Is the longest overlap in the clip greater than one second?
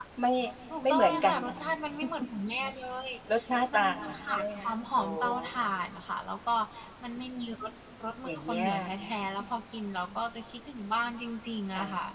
Yes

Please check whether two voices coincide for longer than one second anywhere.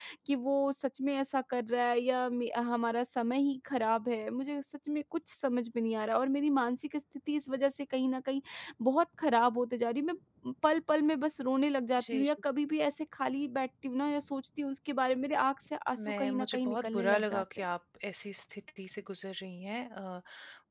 Yes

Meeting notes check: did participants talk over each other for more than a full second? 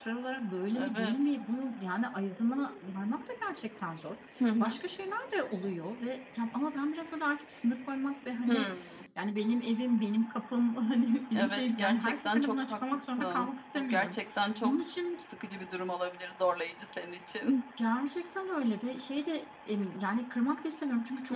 Yes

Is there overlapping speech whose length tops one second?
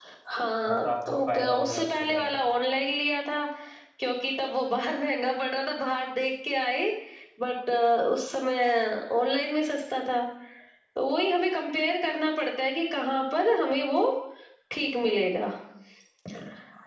Yes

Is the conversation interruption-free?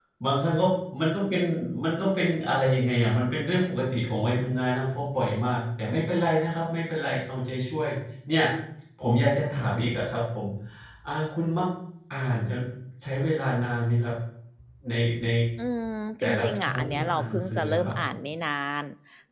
No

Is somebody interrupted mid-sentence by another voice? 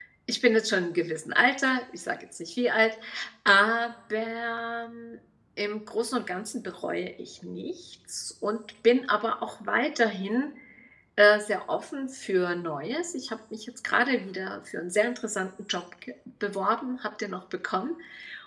No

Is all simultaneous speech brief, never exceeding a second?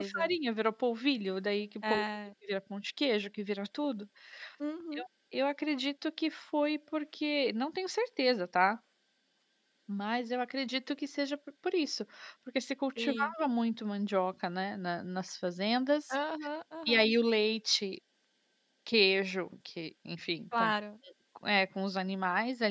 Yes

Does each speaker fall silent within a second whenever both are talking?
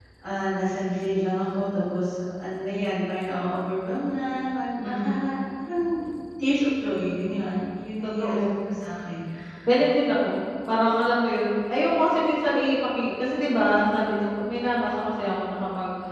Yes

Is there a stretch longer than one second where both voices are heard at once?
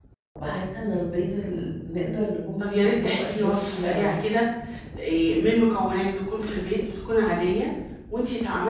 Yes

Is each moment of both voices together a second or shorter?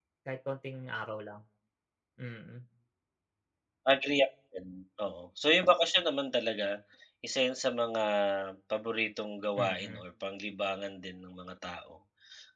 Yes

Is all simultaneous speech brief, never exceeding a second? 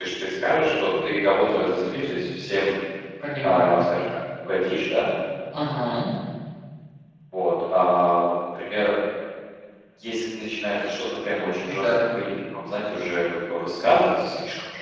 Yes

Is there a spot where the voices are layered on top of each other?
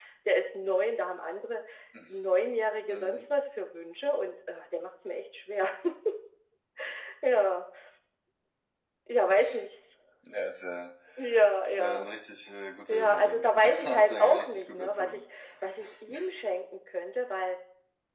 Yes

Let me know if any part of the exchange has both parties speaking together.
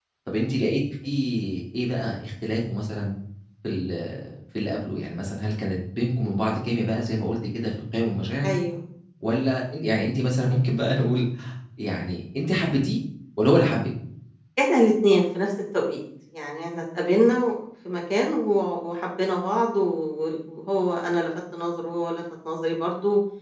No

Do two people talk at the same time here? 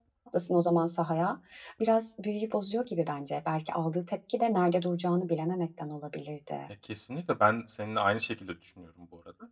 No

